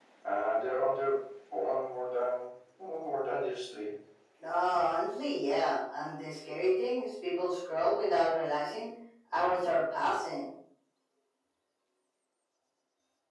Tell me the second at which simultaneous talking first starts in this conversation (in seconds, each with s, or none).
none